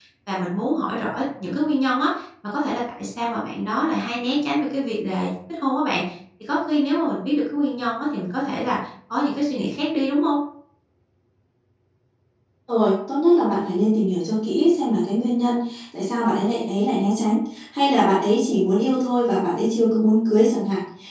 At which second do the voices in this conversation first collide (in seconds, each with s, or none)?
none